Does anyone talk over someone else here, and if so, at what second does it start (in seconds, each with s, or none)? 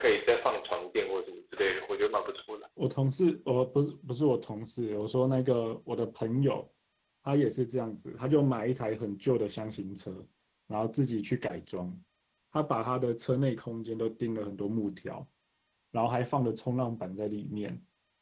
none